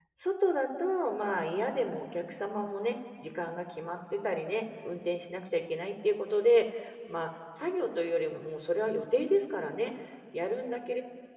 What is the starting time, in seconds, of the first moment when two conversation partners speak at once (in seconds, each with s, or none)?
none